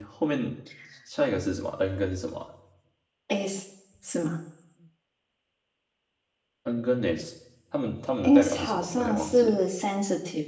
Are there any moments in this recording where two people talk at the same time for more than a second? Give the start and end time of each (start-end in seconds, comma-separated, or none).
8.2-9.6